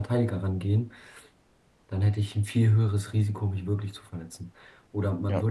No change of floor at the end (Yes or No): Yes